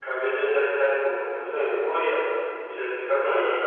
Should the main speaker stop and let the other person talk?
No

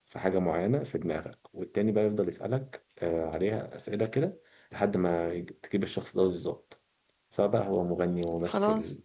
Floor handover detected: No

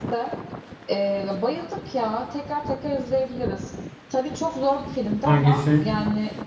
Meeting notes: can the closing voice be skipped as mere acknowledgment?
Yes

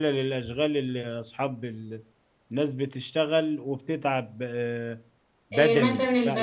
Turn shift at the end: Yes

